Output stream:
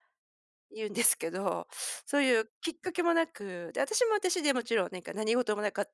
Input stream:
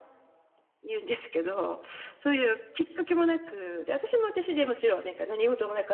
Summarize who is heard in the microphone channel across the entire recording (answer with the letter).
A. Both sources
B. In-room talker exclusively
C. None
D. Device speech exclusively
D